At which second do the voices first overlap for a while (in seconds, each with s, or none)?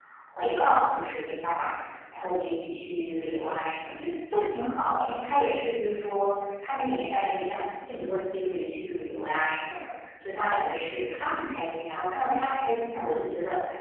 none